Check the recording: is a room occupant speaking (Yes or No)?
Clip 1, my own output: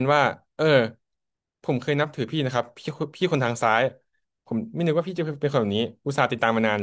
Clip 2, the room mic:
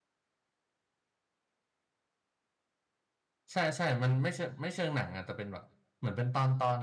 Yes